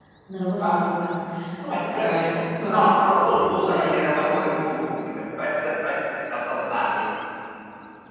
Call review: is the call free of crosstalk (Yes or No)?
No